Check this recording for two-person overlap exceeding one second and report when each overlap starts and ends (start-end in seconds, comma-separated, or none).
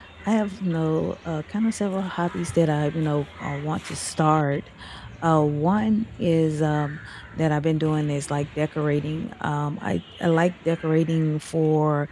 none